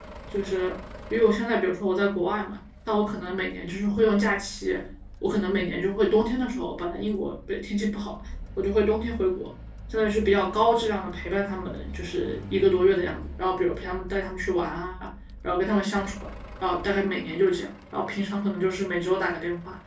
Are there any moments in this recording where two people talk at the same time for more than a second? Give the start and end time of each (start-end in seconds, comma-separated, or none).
none